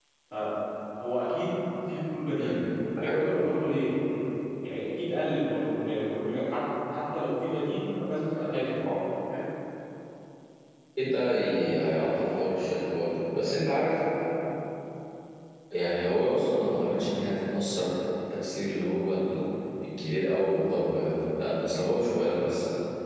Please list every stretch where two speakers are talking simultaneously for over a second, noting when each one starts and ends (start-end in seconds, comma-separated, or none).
none